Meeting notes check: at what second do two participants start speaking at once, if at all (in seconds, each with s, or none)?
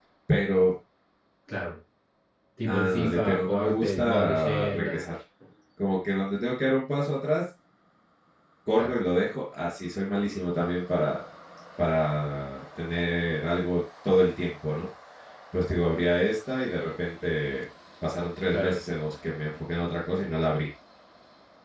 2.6 s